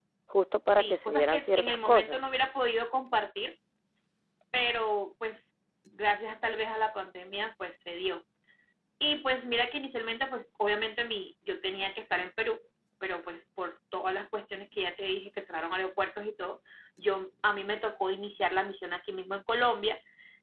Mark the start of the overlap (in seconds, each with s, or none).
0.8 s